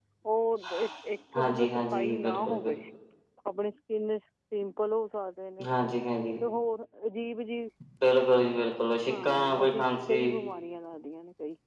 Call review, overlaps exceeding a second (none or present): present